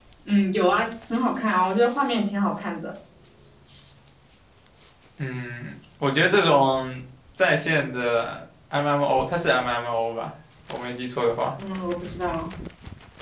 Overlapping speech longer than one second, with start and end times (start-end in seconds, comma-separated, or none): none